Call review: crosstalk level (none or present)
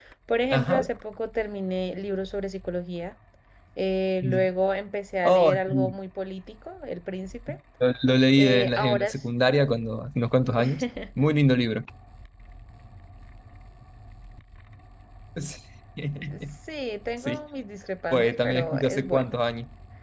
present